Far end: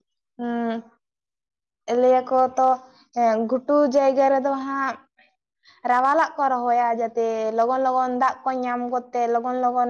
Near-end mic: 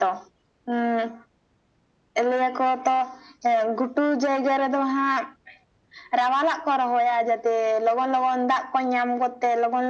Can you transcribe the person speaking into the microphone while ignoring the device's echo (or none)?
none